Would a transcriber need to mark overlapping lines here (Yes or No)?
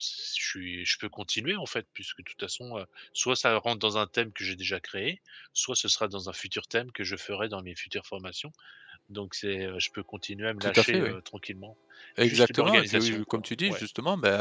Yes